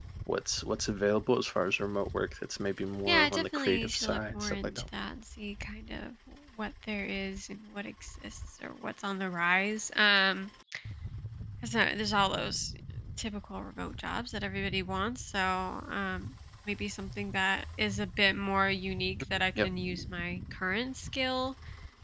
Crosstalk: present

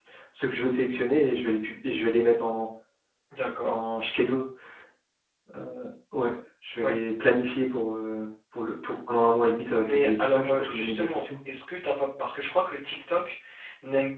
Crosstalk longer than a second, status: present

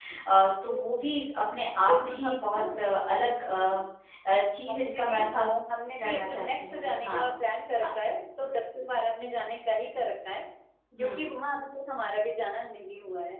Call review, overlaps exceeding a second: present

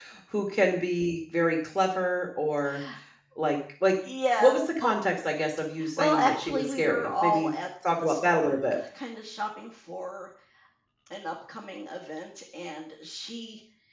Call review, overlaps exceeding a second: present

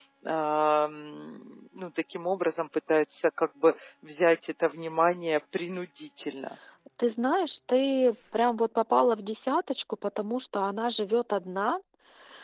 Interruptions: none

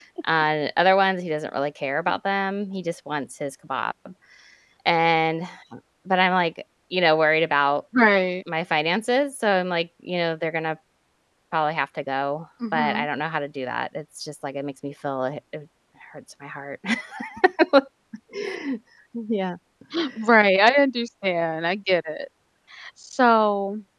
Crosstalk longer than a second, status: none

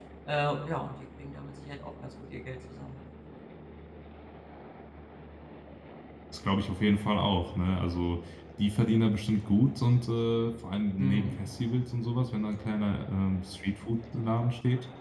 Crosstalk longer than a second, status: none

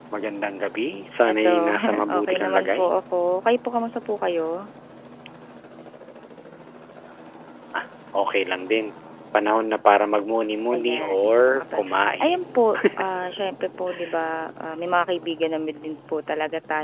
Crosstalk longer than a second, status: present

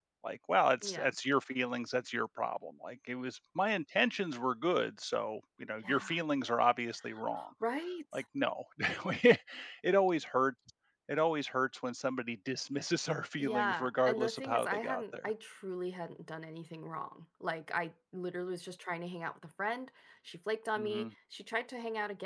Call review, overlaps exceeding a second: present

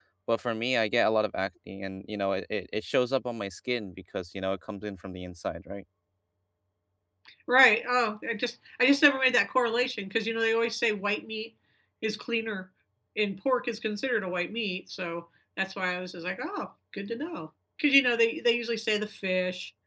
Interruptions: none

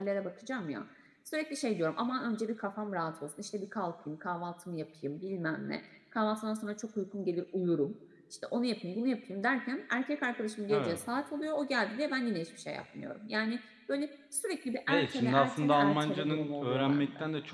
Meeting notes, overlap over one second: present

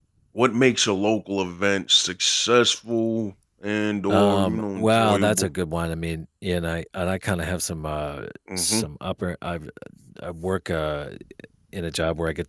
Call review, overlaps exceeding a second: present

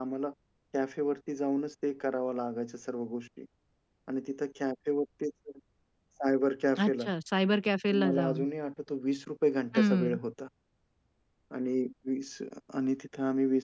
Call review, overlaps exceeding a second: none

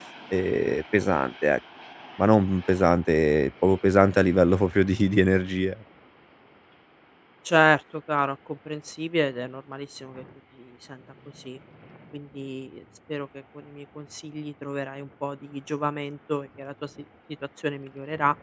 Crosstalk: none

